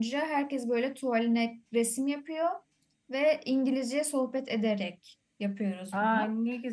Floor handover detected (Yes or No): Yes